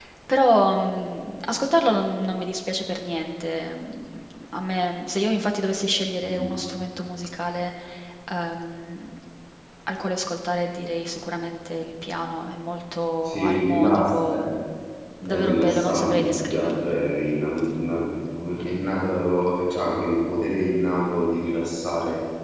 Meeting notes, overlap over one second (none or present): present